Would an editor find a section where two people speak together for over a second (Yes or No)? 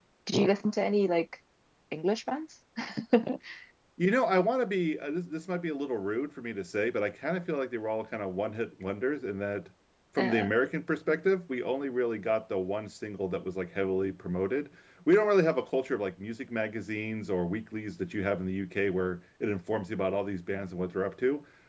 No